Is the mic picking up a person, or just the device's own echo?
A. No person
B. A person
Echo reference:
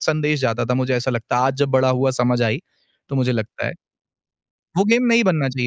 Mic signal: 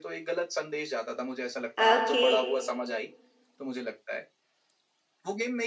B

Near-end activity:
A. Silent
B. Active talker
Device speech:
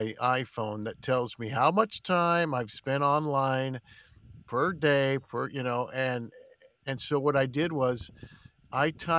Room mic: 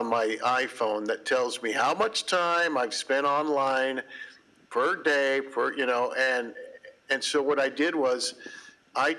A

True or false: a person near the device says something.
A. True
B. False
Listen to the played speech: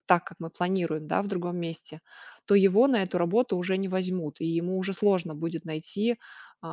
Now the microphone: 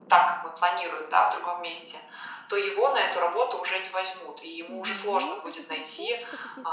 A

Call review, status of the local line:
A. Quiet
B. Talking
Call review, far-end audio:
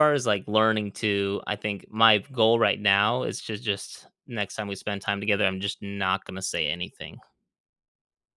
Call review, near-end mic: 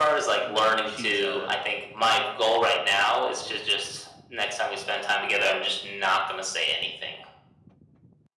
B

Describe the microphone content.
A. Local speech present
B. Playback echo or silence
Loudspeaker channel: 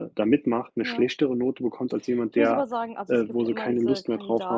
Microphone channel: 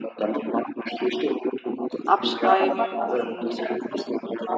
A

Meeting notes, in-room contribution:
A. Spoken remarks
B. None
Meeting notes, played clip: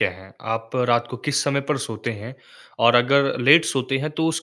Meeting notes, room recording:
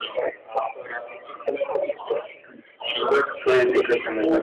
A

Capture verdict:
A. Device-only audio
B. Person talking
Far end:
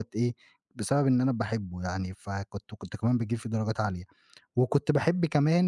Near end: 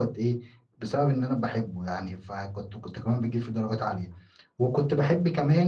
A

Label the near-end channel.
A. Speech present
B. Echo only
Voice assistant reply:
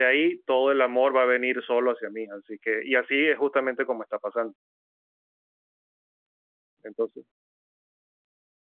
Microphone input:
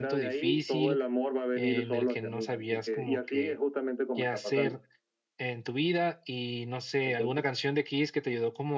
A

